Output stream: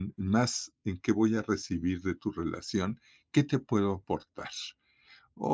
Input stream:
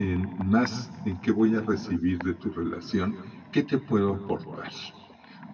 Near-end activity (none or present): none